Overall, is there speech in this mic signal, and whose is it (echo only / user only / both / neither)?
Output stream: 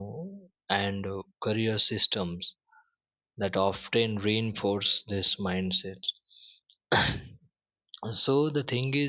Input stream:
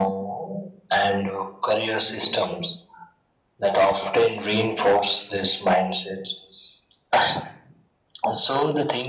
echo only